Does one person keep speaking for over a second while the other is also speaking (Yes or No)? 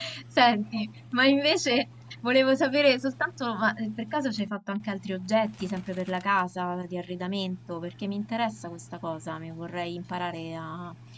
No